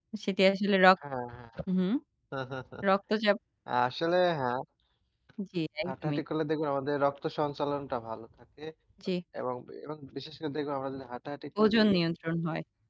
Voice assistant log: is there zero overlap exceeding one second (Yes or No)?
Yes